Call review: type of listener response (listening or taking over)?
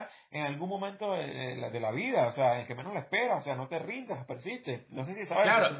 taking over